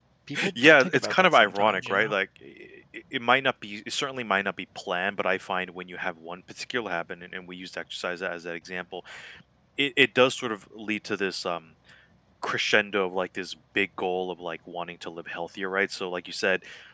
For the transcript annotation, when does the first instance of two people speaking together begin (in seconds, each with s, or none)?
0.5 s